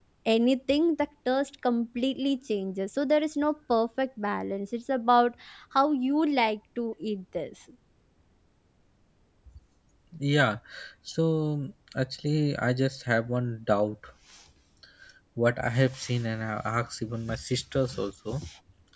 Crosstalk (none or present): none